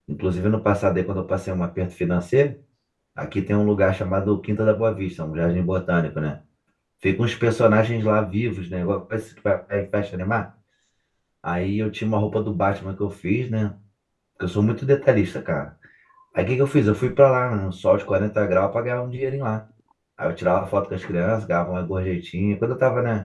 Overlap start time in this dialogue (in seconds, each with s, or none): none